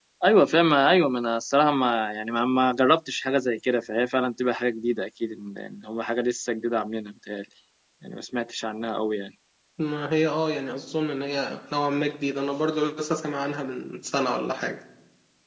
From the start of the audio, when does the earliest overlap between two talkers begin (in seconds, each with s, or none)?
none